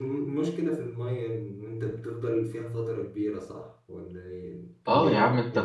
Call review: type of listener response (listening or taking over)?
taking over